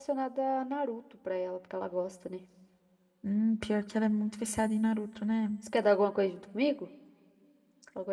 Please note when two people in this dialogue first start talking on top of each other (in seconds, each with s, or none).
none